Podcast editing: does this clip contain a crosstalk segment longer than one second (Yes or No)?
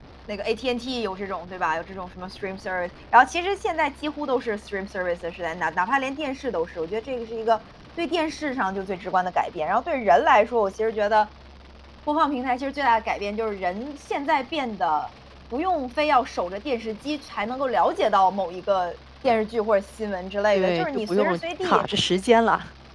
Yes